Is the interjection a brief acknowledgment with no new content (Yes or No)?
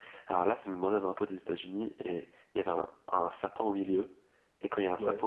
Yes